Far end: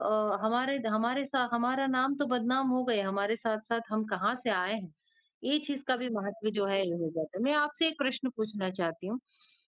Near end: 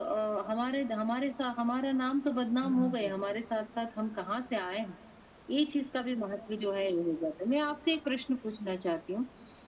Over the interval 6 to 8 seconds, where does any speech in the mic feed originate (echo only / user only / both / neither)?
echo only